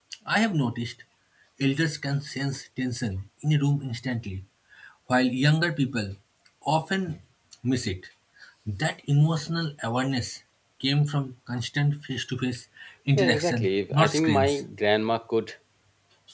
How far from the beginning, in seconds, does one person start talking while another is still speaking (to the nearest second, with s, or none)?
13 s